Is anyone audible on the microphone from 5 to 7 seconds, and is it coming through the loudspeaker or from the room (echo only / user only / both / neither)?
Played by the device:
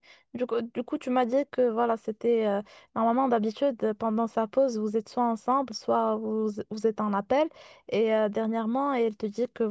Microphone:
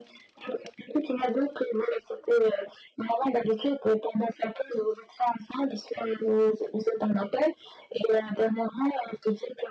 echo only